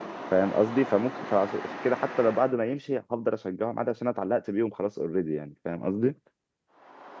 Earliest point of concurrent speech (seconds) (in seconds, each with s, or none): none